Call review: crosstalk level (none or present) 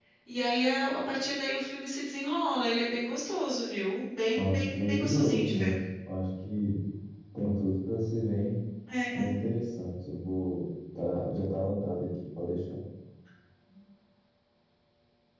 present